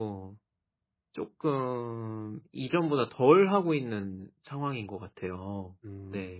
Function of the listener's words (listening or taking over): taking over